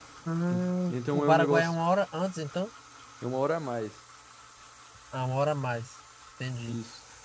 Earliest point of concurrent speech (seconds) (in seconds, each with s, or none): 0.5 s